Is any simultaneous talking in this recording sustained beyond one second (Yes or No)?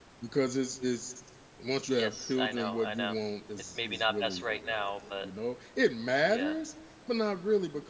Yes